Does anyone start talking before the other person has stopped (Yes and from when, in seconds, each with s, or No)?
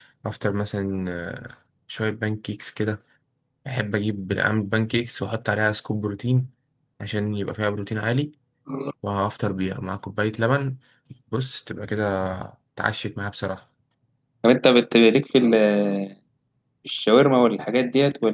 No